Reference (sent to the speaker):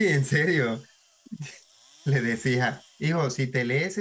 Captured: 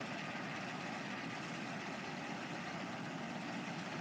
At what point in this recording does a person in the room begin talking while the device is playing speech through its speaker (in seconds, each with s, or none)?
none